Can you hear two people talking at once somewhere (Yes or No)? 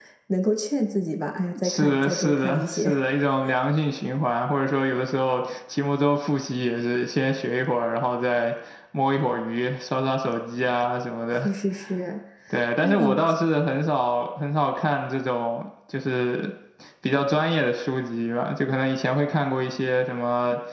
Yes